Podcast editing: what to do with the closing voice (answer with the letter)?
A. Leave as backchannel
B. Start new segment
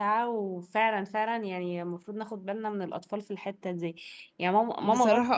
A